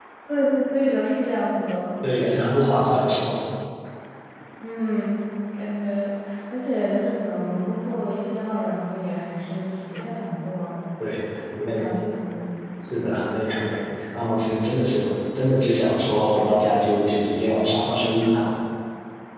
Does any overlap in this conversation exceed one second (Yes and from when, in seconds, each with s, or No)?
No